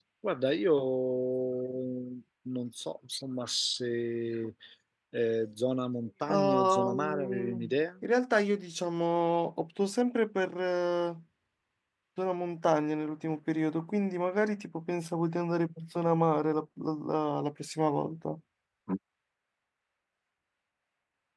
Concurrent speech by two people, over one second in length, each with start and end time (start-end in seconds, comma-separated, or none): 6.3-7.7